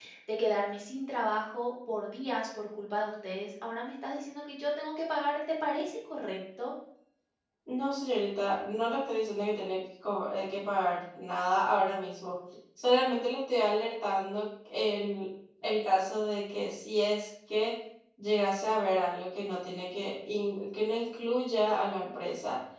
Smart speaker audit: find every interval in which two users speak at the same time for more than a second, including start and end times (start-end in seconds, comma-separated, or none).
none